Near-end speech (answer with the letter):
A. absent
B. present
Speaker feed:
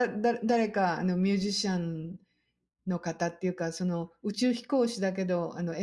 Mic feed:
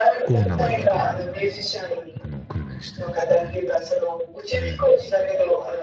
B